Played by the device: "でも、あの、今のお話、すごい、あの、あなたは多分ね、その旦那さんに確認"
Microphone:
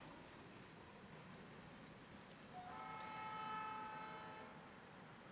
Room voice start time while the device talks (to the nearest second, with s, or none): none